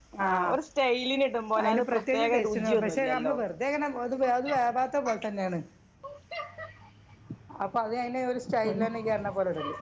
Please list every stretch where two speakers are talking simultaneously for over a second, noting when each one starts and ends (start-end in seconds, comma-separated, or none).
1.6-3.3